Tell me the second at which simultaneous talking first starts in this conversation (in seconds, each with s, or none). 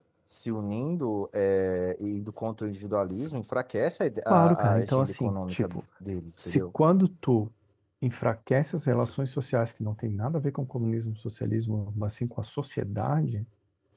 4.3 s